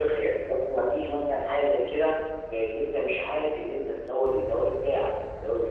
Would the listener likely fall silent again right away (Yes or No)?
Yes